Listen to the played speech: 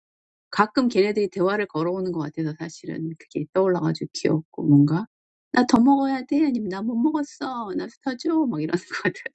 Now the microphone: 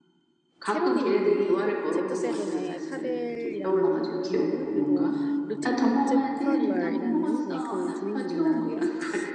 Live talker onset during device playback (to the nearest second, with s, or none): 1 s